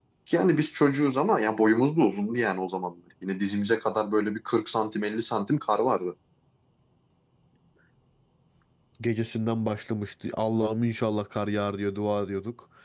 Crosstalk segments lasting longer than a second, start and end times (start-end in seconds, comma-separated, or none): none